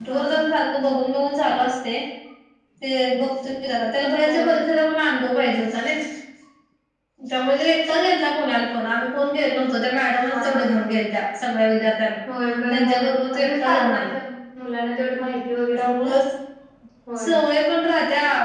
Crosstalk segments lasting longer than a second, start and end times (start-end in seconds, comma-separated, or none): 12.7-14.0